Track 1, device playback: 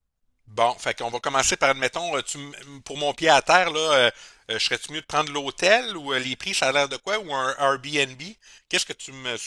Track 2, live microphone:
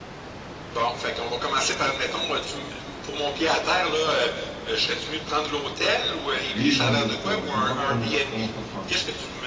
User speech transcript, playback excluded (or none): Oui, bonjour frérot, ça va? Comment, comment ça se passe?